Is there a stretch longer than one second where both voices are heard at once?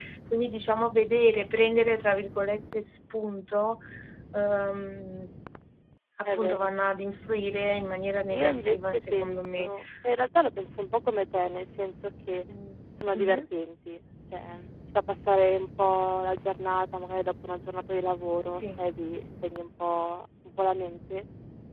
Yes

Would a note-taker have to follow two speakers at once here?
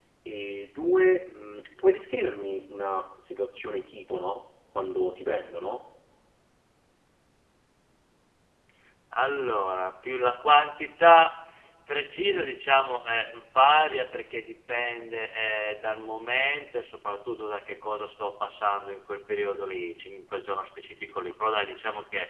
No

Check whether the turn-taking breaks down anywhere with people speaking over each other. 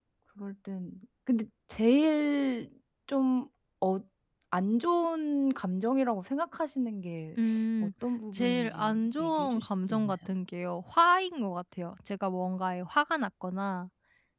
Yes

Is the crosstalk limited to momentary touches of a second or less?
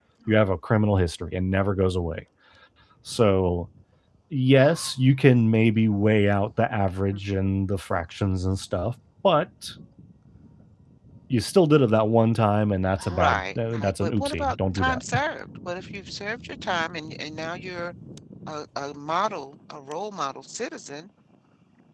No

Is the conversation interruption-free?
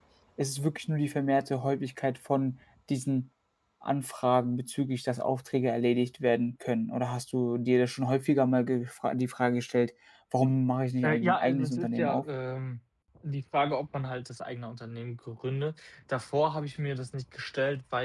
No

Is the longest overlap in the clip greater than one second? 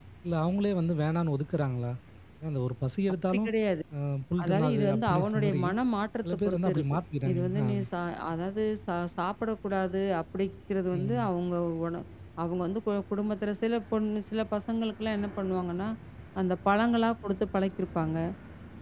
Yes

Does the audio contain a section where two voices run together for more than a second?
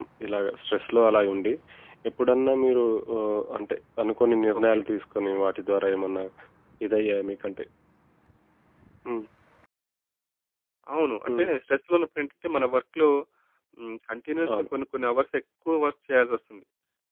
No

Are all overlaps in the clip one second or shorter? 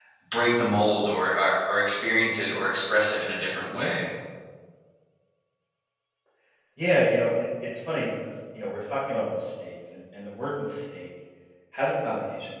Yes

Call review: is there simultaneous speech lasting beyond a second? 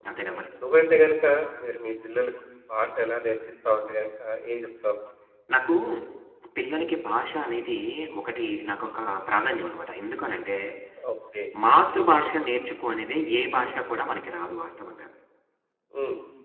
No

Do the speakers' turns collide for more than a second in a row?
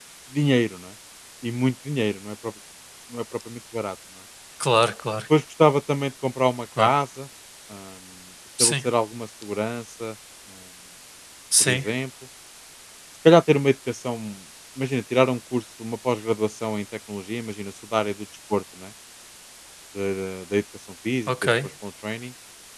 No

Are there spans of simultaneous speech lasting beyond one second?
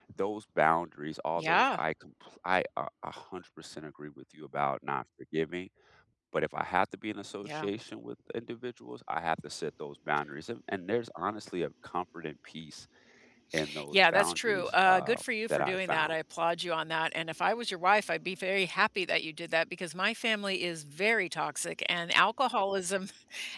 Yes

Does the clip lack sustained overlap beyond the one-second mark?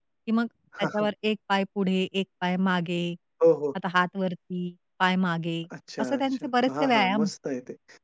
No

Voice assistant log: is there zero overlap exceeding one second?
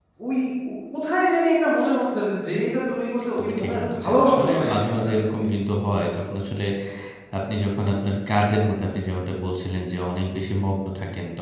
No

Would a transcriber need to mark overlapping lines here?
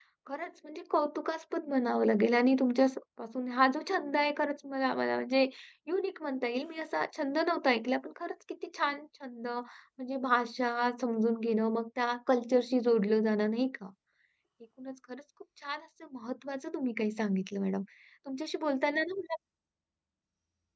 No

